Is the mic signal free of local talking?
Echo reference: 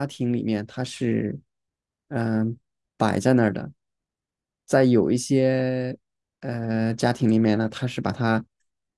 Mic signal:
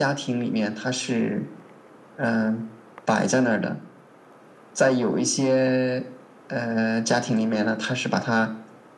Yes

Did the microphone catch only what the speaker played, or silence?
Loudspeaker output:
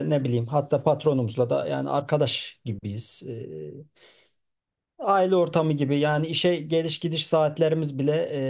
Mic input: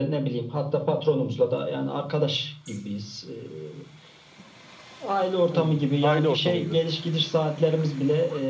No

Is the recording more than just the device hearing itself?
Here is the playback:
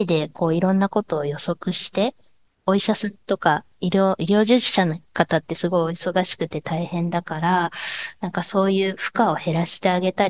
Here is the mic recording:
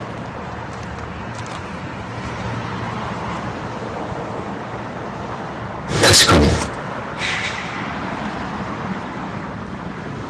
Yes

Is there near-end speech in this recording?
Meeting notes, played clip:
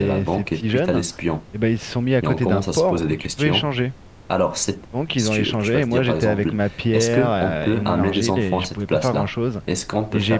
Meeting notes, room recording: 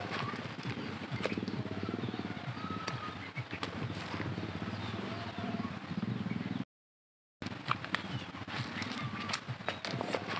No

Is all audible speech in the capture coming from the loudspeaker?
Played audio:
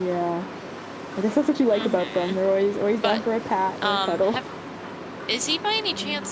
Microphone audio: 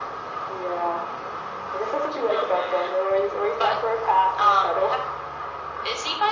Yes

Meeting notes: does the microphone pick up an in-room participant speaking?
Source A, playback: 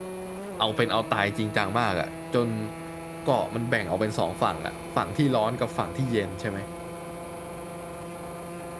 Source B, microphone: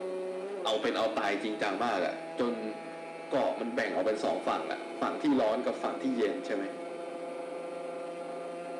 No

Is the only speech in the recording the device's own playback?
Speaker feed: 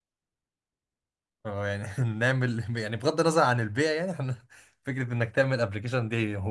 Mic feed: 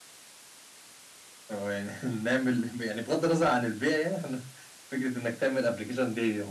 Yes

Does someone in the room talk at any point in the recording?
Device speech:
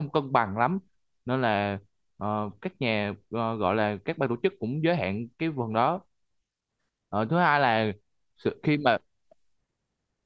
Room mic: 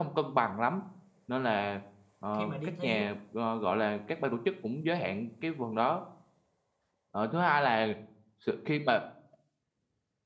Yes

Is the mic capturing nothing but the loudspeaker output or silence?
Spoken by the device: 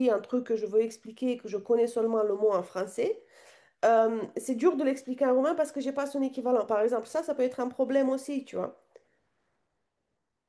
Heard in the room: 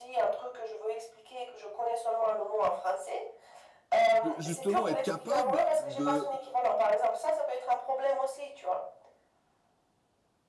No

